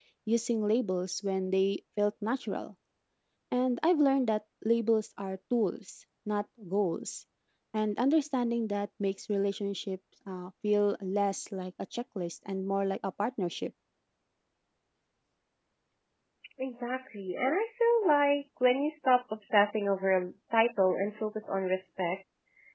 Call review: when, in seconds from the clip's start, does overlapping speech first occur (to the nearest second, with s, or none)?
none